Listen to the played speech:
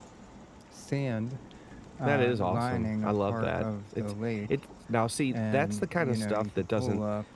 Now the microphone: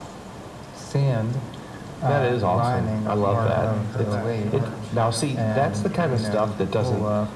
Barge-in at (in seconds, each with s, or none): 3.2 s